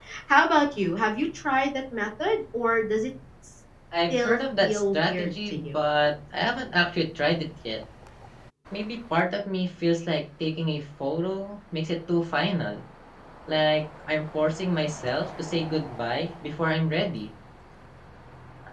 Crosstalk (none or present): present